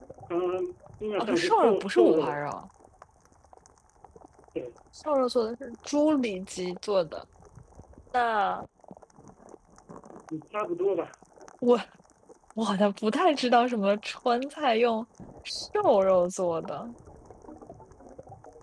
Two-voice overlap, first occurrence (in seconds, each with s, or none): 1.2 s